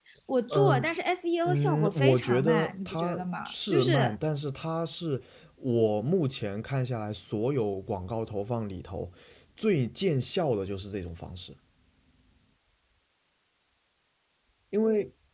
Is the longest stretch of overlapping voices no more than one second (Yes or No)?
No